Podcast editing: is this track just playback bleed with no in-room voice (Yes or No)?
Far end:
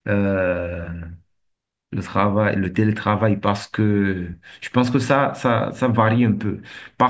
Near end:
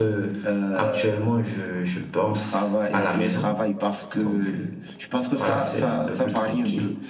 No